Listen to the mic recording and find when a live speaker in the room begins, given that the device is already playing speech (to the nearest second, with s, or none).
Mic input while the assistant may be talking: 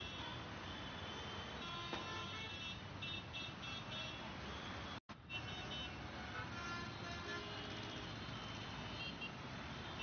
none